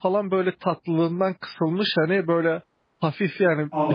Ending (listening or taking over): listening